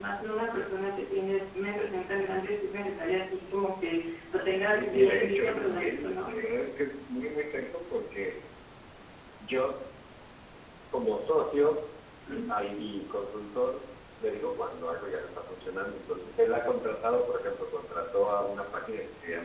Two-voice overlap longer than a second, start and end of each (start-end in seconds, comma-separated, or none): 4.7-6.3